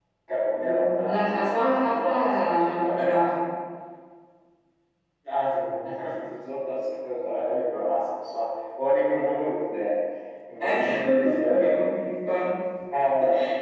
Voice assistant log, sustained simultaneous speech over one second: present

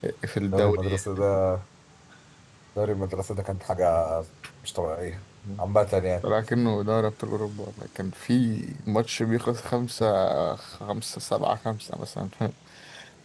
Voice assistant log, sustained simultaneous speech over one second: none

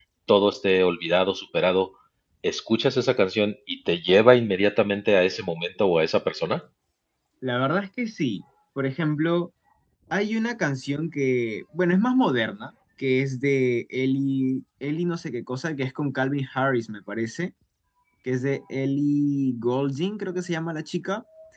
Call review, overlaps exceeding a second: none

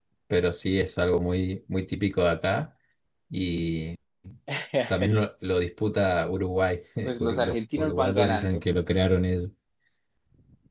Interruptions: present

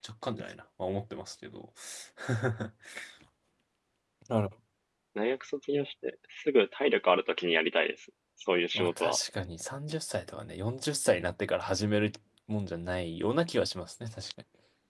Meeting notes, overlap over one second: none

